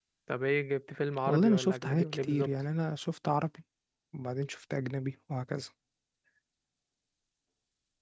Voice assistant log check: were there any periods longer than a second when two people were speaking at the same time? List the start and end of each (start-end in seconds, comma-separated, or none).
1.2-2.5